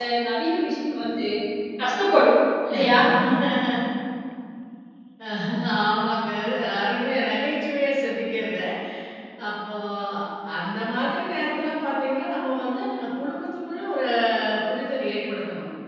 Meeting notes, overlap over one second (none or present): none